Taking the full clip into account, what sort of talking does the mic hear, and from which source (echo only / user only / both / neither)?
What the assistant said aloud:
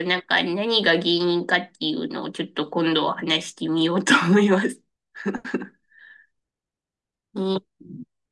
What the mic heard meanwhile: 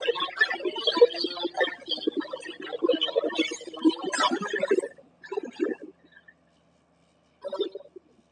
echo only